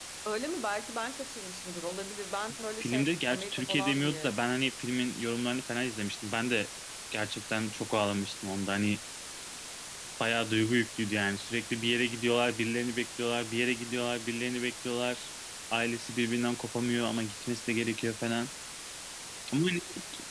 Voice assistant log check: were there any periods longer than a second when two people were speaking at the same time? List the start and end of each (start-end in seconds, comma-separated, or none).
2.8-4.3